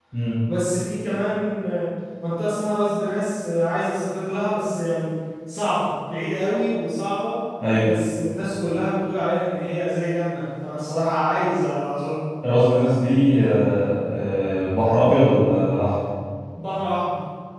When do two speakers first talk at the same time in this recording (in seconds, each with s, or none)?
none